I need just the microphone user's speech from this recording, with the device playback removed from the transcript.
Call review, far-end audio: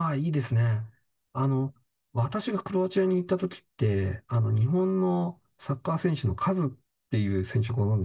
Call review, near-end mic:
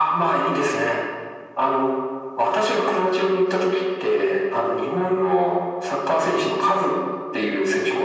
none

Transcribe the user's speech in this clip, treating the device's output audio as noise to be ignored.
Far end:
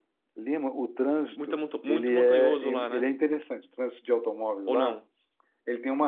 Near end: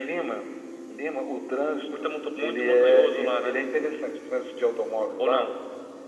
none

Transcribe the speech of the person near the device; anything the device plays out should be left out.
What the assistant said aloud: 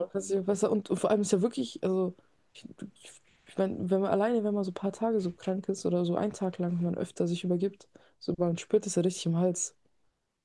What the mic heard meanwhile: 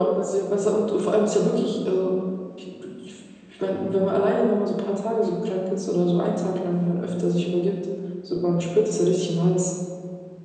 none

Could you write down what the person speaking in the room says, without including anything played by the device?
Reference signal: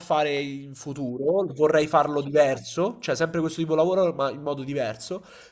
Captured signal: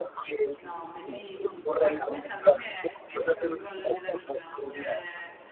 no, bellissimo. Ecco, questa per me è, è proprio il gol della vita. Cioè,

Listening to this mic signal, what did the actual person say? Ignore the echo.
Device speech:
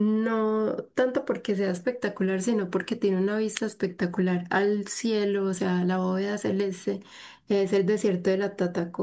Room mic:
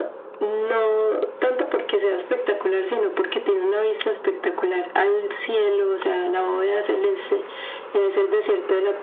none

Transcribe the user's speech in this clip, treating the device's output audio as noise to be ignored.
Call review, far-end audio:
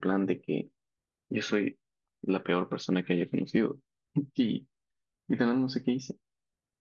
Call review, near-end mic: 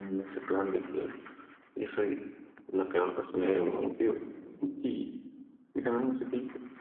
pero

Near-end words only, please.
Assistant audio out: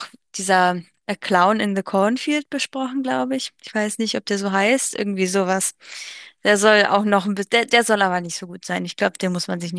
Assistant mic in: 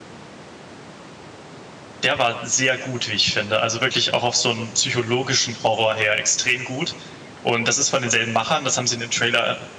der war sehr gut, wie ich finde. Also wirklich auch auf so einen psychologischen Horror her extrem gut. Und das ist von denselben Machern. Das haben sie in dem Trailer

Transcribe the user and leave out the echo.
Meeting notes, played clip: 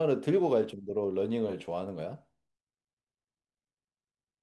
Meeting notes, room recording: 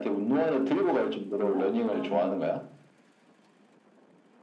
그래? 그럼

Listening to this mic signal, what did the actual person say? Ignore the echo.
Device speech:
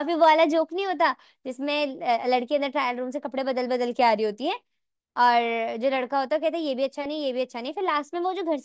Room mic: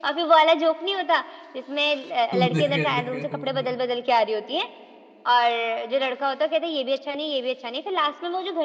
हाँ देखा देखा बढ़िया

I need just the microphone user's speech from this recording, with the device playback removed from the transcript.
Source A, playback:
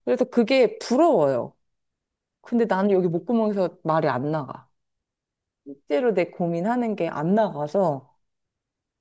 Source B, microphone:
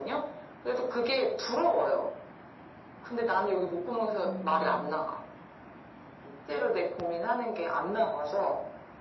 음,

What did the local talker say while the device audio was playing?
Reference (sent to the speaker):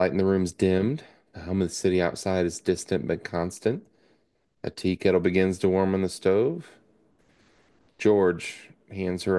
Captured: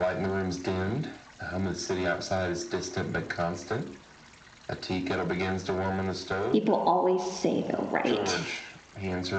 People always say they'll write.

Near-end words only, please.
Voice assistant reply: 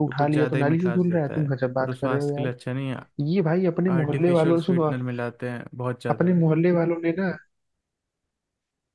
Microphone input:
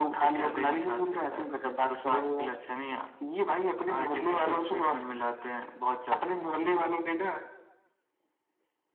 none

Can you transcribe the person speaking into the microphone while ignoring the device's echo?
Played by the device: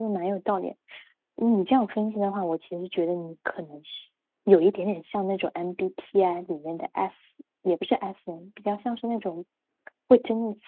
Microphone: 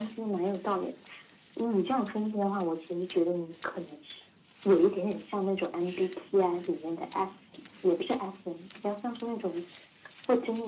none

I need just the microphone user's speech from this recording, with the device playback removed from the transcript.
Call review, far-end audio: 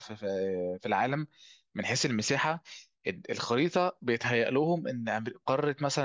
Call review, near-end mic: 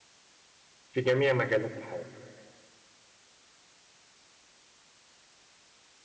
في جميع مجالات الحياه

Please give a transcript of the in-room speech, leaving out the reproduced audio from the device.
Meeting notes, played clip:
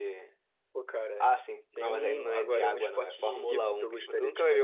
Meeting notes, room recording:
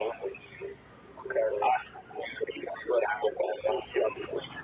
none

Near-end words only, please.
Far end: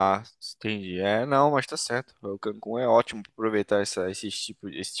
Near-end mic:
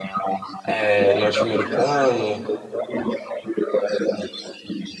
é, norte-americano.

